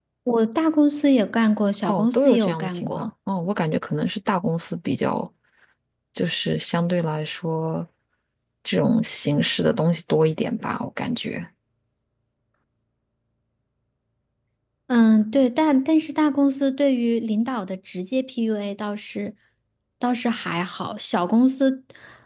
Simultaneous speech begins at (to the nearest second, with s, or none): 2 s